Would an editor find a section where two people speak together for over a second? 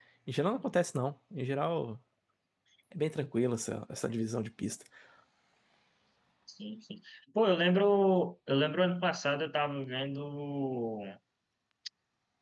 No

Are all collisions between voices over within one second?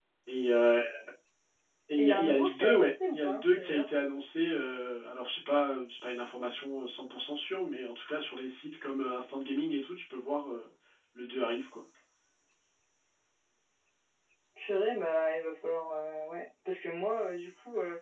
No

